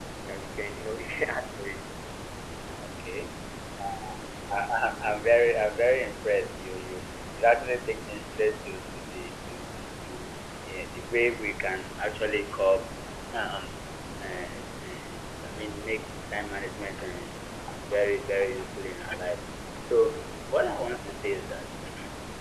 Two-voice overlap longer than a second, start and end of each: none

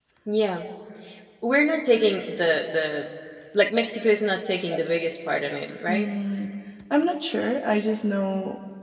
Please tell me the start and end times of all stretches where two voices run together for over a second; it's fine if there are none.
none

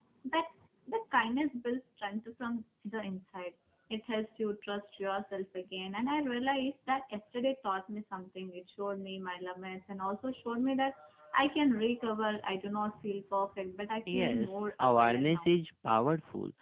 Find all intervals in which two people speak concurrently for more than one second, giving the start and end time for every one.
14.1-15.5

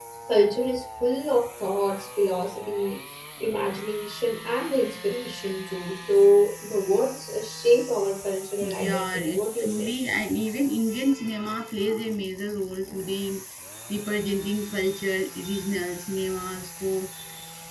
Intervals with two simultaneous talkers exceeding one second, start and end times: 8.6-9.9

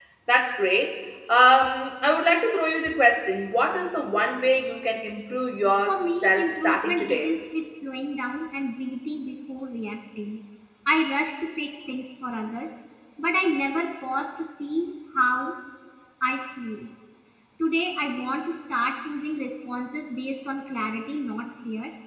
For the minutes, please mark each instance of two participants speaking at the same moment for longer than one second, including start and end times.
5.9-7.3

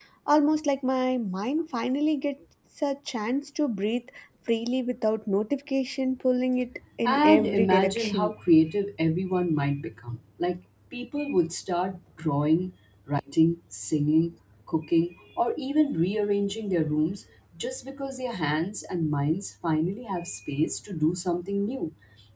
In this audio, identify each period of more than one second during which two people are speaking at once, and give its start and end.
7.0-8.3

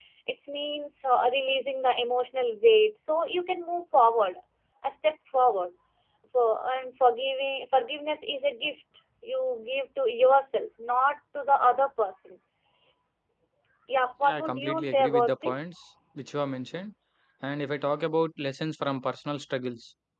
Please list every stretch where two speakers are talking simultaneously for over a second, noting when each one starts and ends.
14.2-15.7

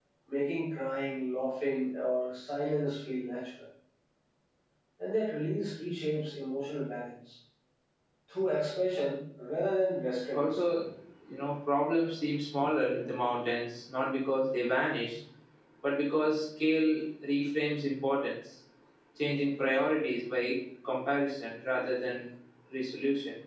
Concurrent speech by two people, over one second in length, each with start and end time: none

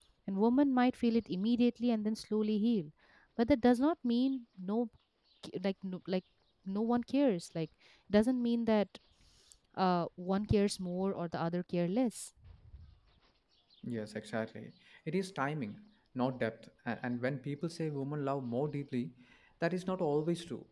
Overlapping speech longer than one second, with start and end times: none

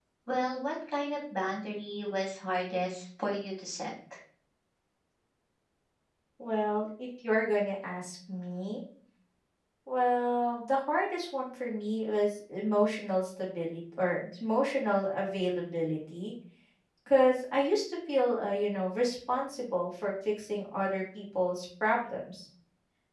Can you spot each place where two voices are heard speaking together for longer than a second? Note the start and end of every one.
none

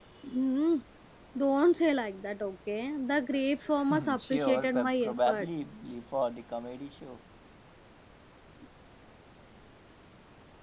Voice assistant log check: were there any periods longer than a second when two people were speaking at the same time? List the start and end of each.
3.9-5.5

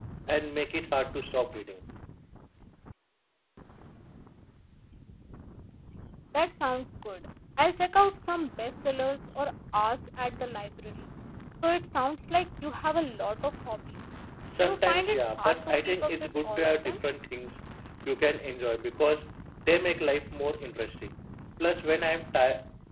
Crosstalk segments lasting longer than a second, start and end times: 14.6-17.0

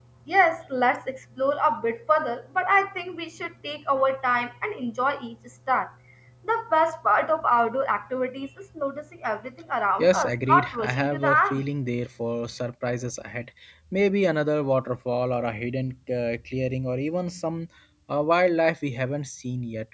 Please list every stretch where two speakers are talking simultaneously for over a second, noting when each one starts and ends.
10.0-11.6

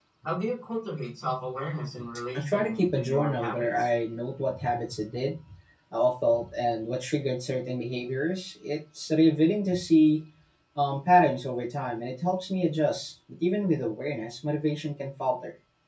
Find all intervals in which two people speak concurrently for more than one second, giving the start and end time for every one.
2.4-3.9

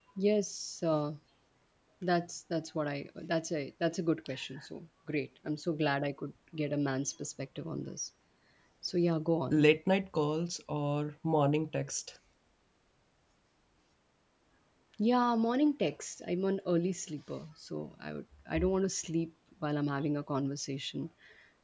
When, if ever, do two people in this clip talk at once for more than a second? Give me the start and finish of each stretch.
none

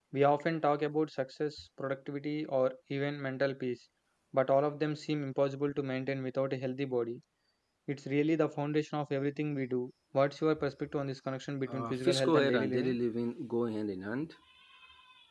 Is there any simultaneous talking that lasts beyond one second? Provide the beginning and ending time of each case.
11.7-13.0

